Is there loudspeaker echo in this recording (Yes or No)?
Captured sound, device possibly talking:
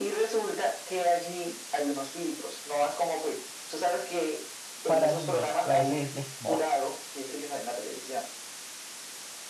Yes